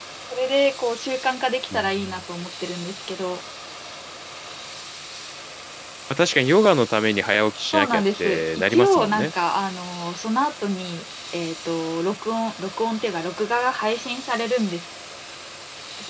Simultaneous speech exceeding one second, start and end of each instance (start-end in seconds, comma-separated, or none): 7.7-9.3